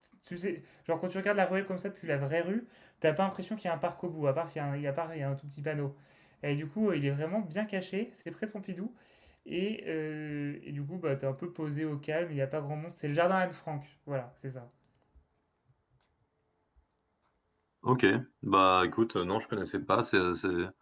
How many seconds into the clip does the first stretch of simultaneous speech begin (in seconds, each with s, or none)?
none